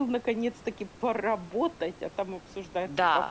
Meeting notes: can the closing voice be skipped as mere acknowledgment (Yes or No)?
No